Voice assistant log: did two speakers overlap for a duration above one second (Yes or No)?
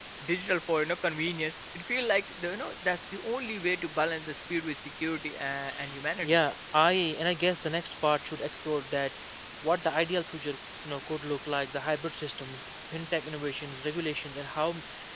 No